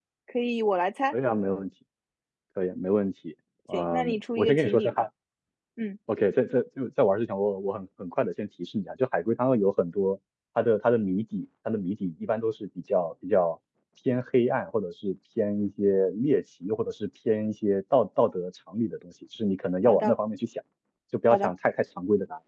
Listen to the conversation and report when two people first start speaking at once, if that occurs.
3.7 s

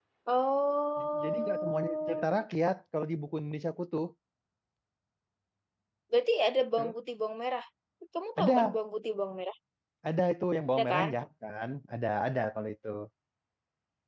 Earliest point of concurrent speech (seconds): 1.2 s

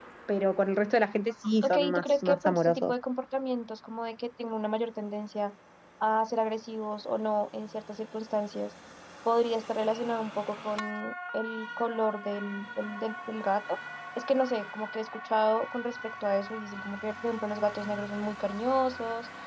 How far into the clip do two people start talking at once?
1.6 s

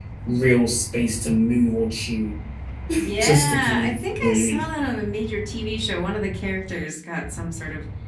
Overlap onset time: 3.1 s

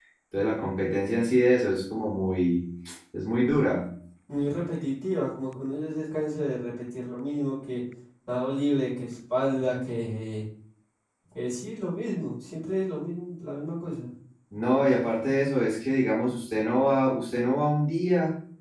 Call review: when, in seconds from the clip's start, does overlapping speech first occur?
none

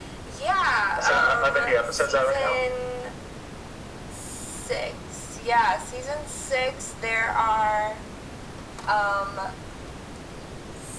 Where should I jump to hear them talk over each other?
1.0 s

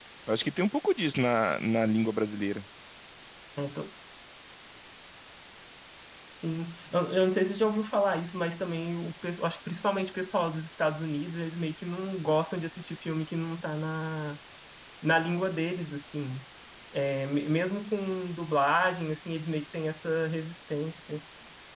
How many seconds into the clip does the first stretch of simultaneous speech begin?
none

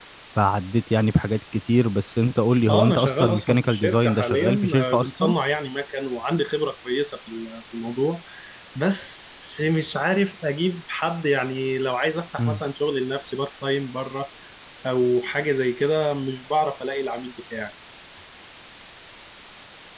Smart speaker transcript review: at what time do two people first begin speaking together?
2.7 s

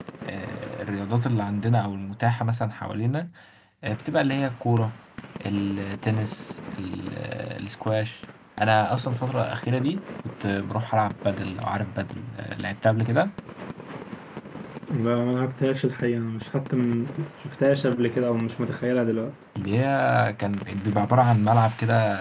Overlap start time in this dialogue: none

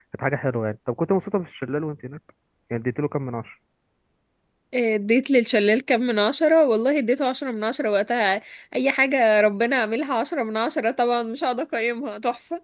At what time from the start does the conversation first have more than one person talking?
none

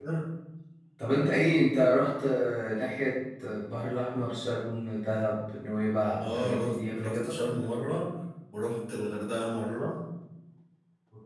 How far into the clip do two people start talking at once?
6.1 s

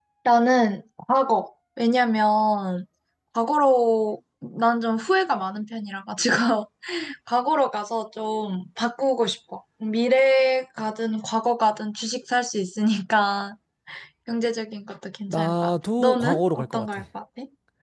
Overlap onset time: 15.3 s

